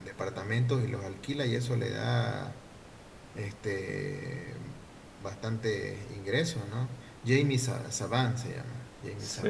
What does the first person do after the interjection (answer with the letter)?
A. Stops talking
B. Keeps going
A